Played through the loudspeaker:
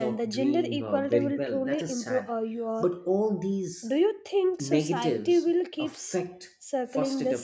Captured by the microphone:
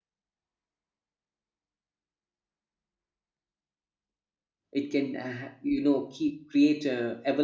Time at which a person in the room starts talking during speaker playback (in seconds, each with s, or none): 4.7 s